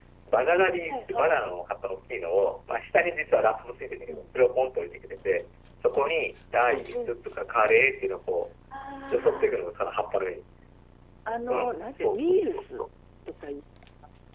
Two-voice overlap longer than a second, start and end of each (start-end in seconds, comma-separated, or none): 11.5-12.8